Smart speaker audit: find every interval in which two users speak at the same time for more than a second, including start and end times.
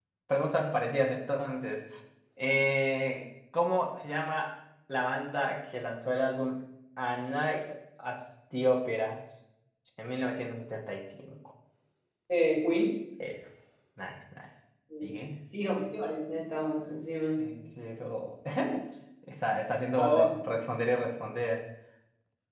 none

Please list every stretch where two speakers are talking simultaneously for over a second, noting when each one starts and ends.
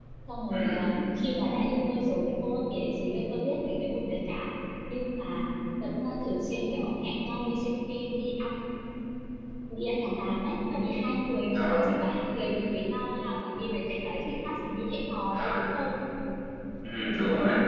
none

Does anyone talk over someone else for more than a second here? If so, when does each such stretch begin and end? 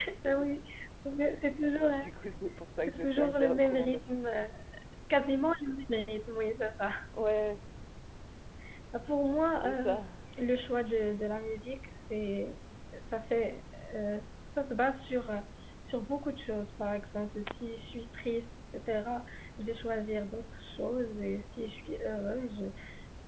2.8-4.2

